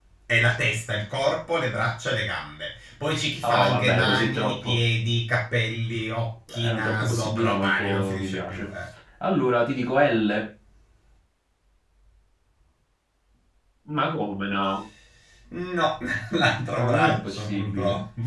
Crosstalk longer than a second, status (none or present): present